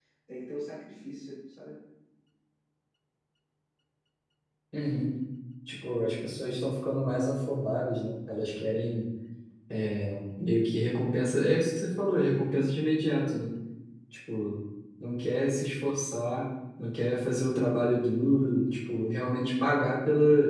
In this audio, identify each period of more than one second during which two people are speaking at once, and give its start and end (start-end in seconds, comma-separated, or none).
none